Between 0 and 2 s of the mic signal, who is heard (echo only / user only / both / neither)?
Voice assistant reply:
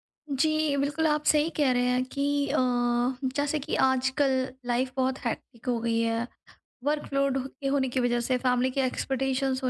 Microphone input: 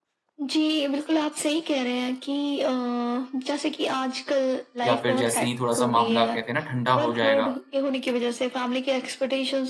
echo only